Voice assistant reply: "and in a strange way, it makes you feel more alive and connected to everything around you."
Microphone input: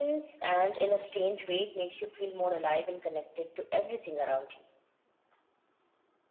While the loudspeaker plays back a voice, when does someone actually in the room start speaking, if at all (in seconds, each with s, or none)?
none